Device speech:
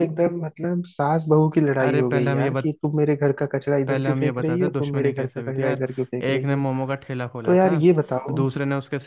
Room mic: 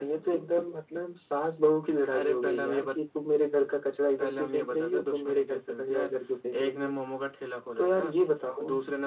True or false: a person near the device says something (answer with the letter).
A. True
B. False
B